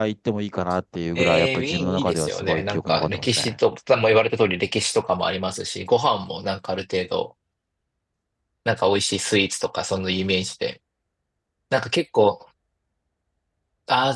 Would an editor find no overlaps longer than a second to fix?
No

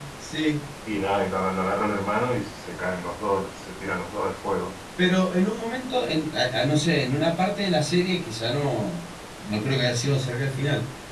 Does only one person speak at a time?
Yes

